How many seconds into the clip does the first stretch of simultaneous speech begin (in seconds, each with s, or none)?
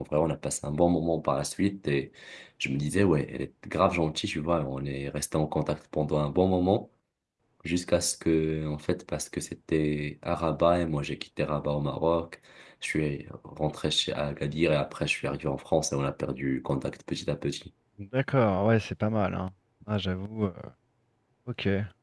none